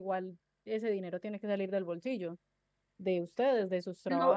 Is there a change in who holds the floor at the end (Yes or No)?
Yes